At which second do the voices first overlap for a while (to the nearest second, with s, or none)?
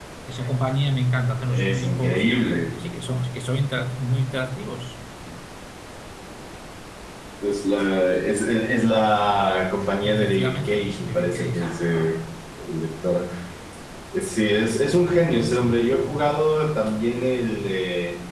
2 s